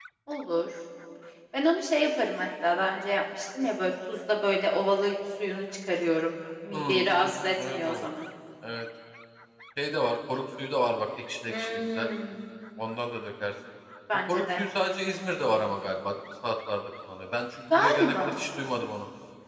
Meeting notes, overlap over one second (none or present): present